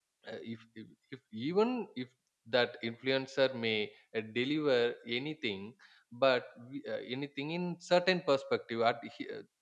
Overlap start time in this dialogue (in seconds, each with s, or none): none